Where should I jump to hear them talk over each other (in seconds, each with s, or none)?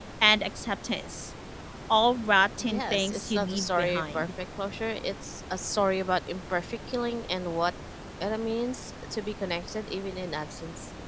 2.6 s